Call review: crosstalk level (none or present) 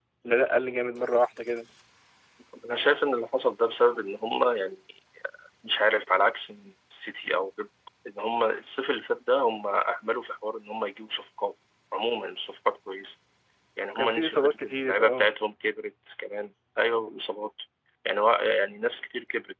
present